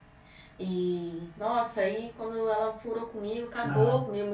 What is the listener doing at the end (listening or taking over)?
listening